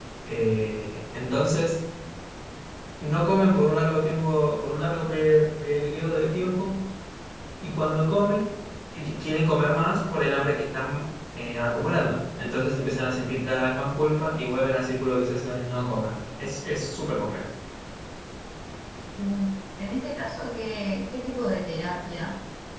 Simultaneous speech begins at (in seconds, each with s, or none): none